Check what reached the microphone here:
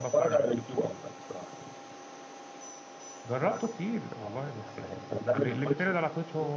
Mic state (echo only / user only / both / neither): both